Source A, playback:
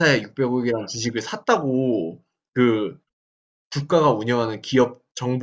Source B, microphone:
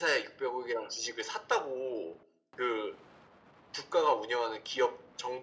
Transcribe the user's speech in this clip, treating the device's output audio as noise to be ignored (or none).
none